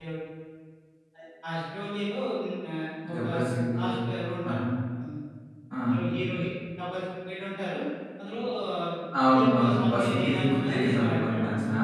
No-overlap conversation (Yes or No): No